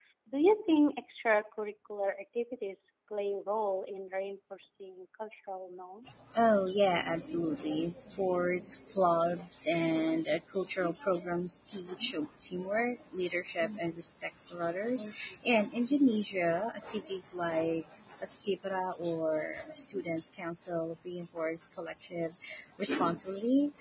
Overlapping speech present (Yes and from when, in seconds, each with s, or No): No